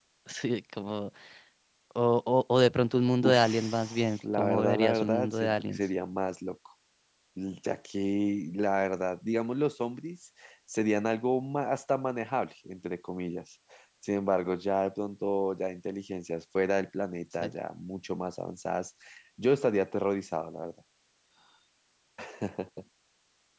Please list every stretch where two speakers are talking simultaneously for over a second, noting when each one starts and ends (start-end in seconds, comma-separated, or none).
3.2-5.8